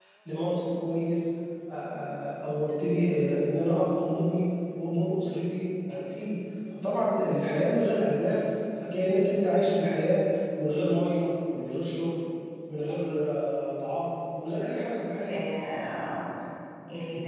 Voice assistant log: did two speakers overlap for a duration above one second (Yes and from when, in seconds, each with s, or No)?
No